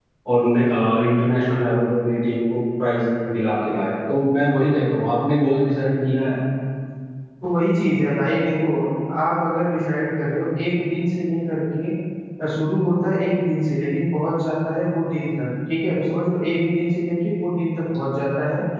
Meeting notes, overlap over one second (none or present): none